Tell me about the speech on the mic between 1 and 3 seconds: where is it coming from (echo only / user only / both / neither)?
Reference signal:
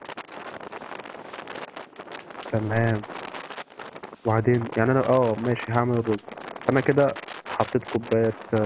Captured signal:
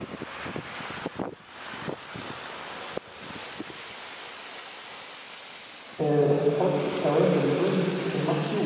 neither